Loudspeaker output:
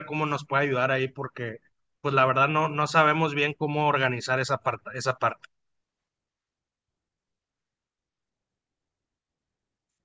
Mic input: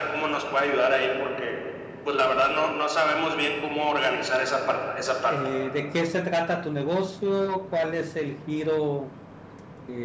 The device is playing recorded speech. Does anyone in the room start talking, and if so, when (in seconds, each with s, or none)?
5.3 s